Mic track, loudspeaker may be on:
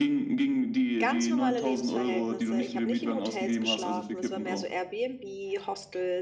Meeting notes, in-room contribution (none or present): present